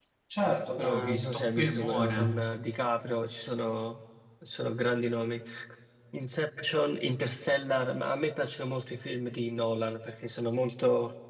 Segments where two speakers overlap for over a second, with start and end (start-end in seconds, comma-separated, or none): 0.8-2.4